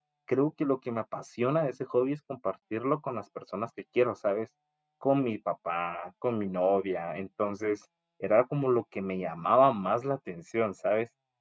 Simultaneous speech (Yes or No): No